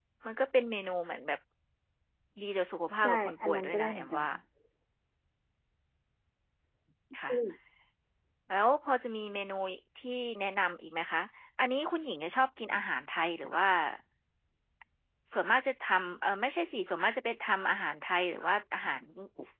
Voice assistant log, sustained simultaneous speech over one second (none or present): present